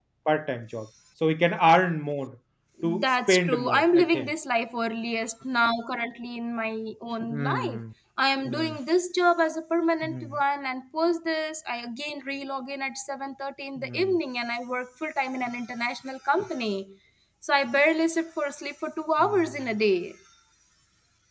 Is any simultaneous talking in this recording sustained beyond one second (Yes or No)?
Yes